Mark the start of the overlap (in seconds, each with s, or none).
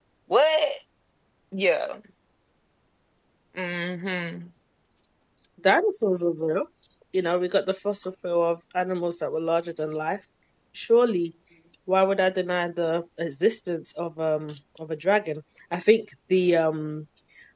none